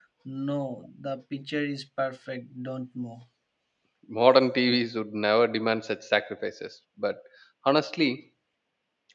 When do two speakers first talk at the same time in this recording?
none

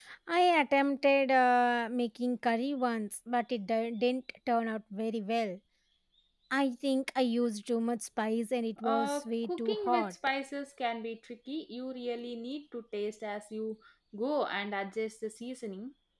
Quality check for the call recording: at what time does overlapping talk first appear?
8.8 s

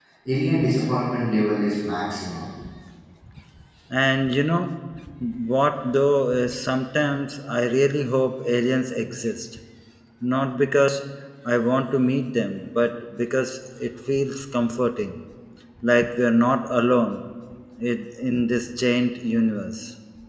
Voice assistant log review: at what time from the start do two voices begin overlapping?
none

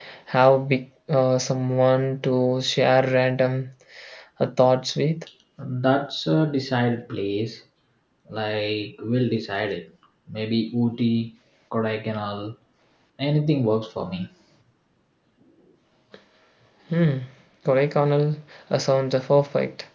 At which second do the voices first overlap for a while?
none

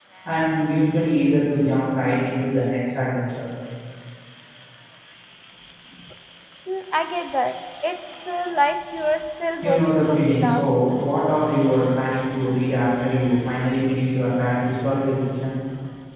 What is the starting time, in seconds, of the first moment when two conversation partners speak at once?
9.6 s

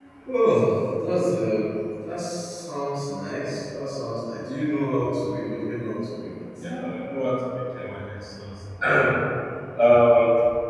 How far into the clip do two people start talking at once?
none

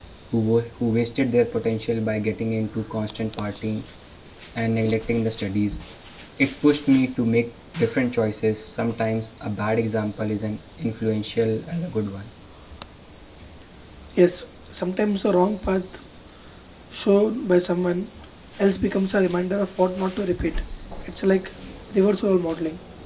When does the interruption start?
none

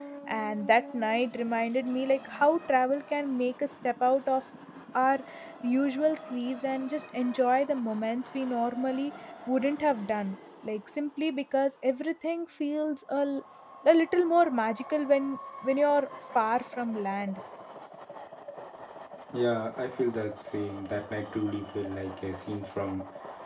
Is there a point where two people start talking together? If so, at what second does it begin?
none

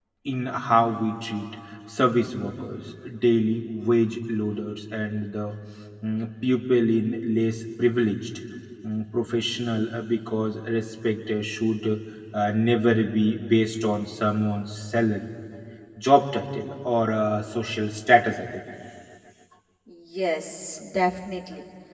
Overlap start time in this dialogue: none

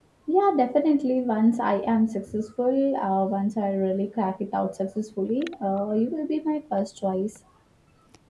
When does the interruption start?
none

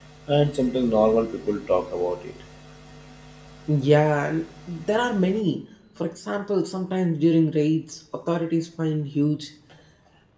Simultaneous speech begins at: none

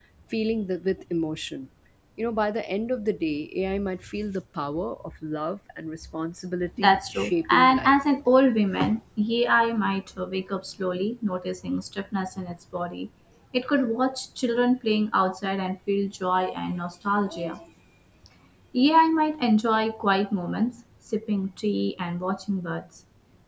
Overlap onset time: 6.8 s

